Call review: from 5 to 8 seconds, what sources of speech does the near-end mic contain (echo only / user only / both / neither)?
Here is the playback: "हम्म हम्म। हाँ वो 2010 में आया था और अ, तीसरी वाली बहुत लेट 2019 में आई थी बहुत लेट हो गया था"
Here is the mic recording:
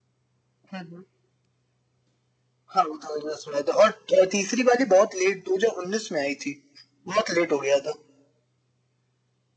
echo only